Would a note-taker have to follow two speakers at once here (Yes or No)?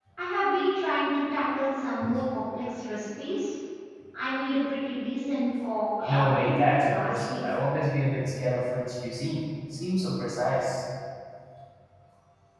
Yes